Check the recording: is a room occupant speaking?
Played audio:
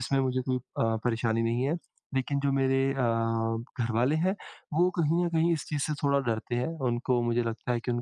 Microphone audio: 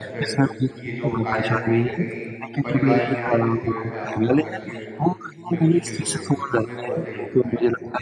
Yes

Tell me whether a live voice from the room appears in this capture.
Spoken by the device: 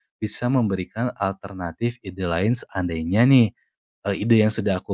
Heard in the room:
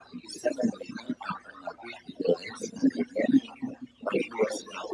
No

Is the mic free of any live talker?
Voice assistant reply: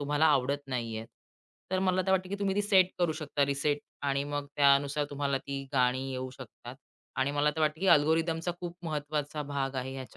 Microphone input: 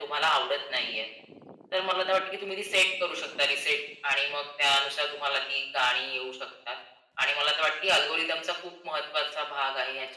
Yes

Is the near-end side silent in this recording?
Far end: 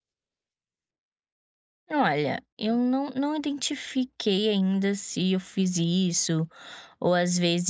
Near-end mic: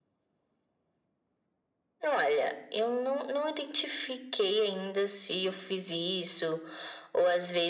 Yes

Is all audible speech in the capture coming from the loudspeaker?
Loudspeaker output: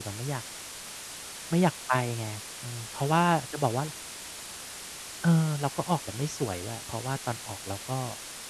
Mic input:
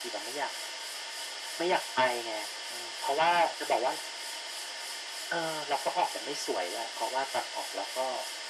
Yes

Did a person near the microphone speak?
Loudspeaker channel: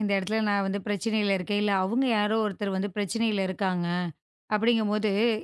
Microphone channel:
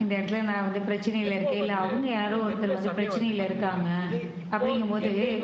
Yes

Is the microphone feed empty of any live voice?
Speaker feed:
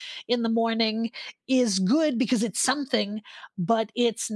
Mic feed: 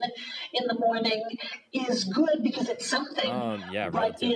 No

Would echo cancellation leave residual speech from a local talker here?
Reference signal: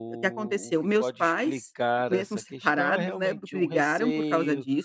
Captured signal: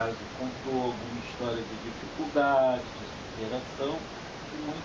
Yes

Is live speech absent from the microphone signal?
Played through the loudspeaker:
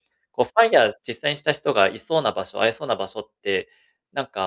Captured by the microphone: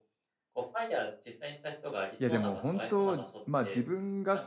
No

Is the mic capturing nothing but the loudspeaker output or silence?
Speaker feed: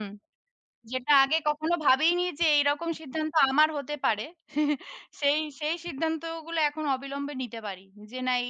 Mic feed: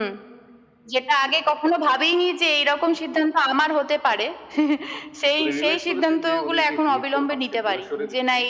No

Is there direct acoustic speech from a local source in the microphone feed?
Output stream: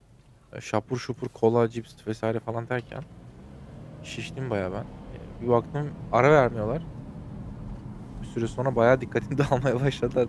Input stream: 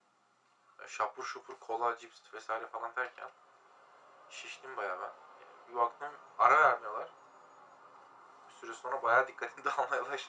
No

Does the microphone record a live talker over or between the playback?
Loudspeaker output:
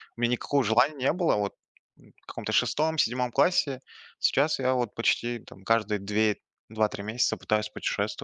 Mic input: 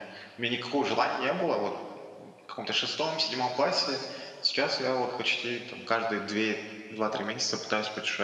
No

